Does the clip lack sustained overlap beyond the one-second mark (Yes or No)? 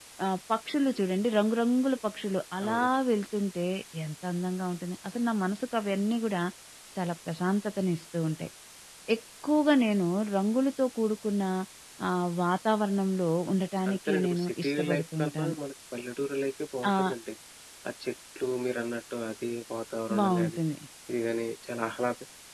No